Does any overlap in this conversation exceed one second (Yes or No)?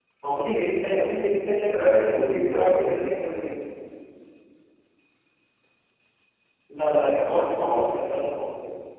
Yes